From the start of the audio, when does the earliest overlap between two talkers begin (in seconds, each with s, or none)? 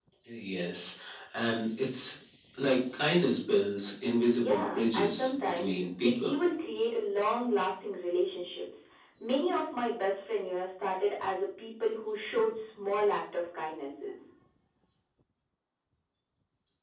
4.4 s